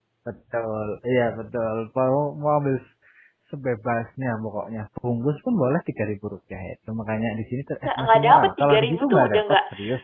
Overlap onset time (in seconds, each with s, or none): 7.8 s